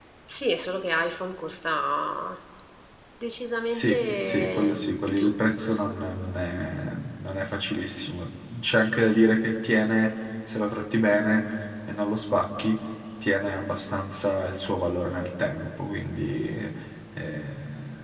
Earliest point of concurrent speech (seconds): 4 s

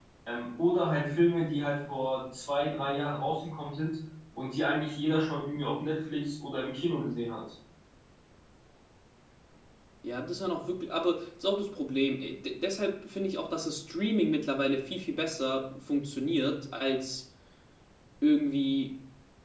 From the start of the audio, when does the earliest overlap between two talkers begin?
none

